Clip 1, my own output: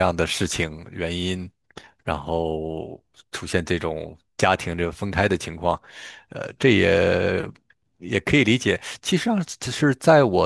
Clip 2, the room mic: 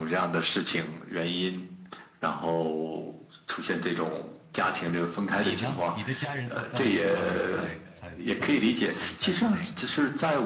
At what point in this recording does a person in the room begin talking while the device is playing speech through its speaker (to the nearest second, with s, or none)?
5 s